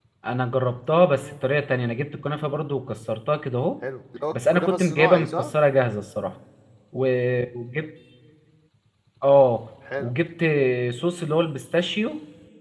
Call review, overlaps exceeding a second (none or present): present